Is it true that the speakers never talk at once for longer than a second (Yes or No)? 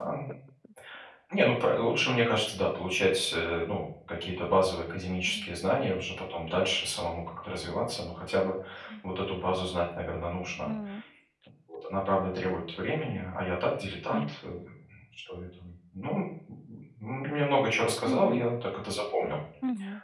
Yes